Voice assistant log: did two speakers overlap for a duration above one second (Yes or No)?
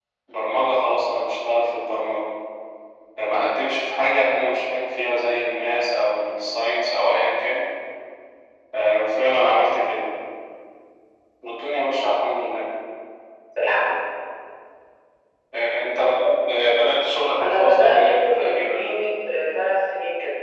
Yes